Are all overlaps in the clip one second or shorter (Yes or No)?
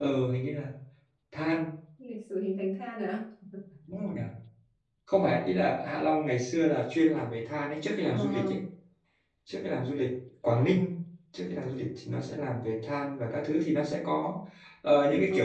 Yes